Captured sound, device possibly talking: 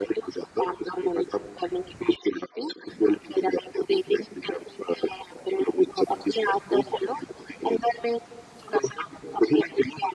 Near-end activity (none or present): none